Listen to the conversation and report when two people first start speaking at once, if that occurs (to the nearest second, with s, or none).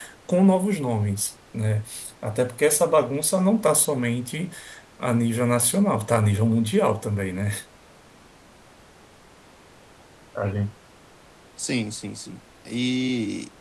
none